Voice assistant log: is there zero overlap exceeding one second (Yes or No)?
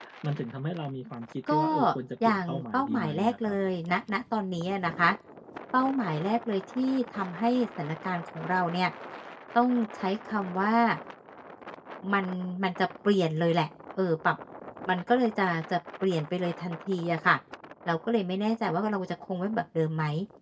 No